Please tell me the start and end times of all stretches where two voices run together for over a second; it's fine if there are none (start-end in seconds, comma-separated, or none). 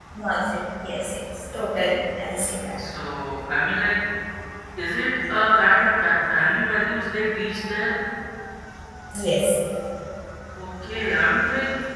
none